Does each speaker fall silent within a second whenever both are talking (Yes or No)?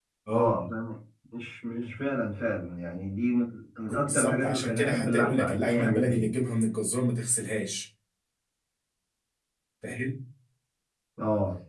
No